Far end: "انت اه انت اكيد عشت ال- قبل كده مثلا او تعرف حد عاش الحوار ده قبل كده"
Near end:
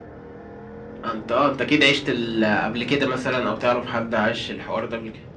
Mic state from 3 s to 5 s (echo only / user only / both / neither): echo only